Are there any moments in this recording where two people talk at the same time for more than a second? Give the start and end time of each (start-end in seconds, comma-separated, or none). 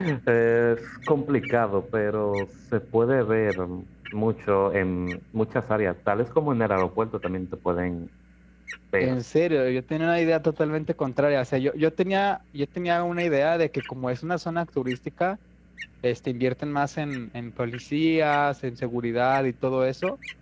none